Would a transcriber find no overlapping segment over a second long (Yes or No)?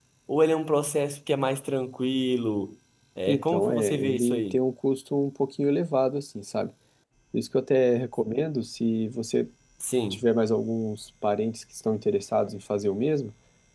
No